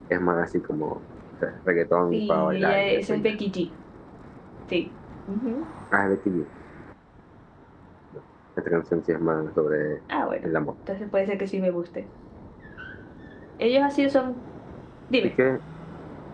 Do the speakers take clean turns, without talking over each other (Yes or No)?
No